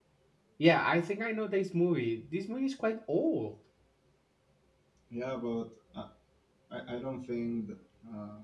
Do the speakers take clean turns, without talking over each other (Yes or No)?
Yes